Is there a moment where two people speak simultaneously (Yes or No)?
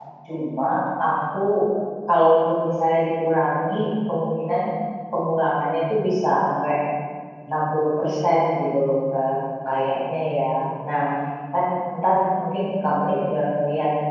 No